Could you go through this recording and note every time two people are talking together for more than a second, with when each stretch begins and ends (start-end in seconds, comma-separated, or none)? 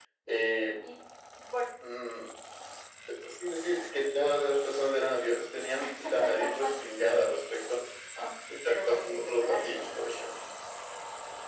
8.7-9.9